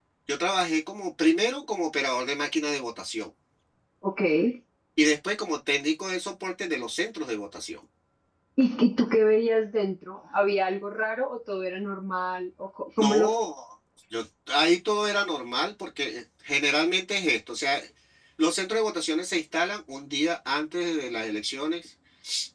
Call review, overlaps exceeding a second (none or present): none